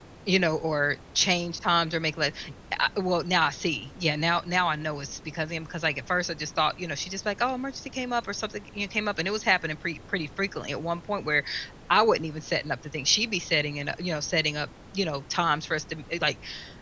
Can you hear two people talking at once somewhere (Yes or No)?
No